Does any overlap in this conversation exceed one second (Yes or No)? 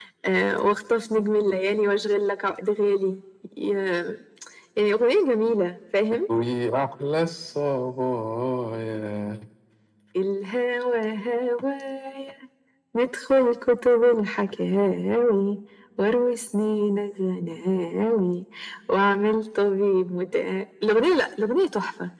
No